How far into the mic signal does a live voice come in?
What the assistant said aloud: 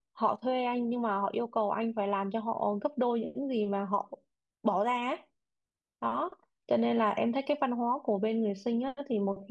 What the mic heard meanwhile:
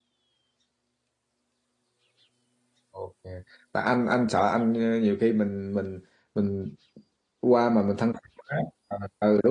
3 s

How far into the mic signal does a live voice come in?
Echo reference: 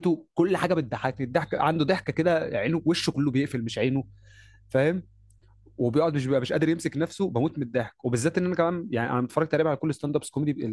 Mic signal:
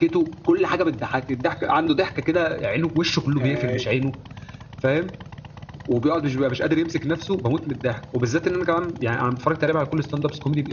3 s

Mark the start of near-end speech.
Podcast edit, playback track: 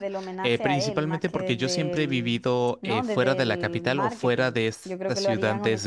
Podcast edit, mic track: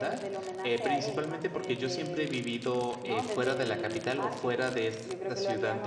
none

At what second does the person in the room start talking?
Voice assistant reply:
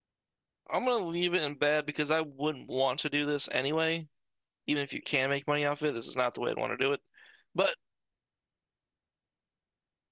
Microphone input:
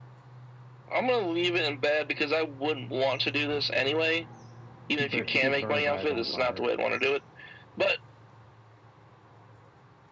5 s

